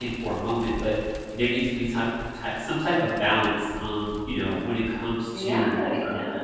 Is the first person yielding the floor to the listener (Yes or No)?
Yes